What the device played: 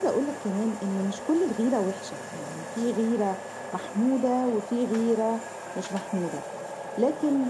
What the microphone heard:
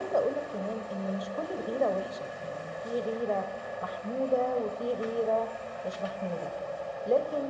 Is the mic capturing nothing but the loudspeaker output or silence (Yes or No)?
Yes